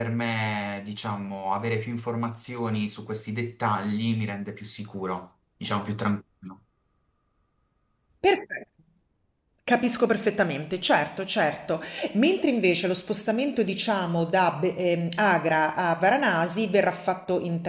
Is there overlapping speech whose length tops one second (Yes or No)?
No